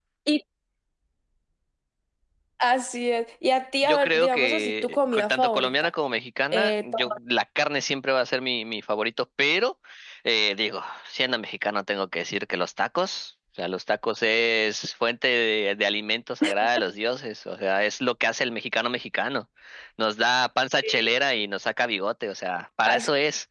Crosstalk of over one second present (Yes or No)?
Yes